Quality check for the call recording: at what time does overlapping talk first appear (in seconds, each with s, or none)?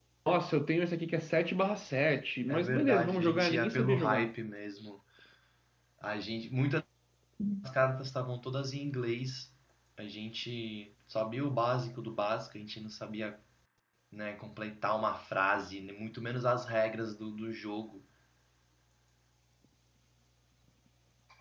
2.5 s